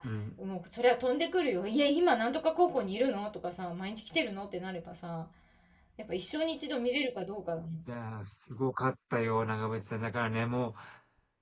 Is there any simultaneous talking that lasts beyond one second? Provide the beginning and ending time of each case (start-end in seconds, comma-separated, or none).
none